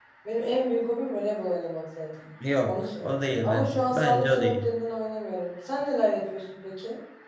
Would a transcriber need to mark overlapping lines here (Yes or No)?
Yes